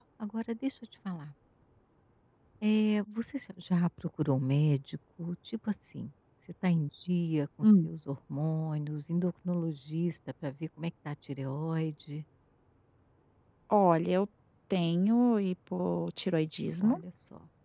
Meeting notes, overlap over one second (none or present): none